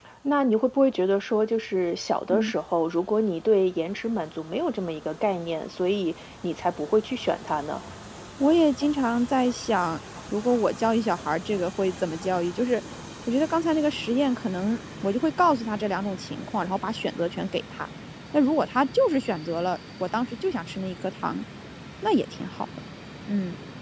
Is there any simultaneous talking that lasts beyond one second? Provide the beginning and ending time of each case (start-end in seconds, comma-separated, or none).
none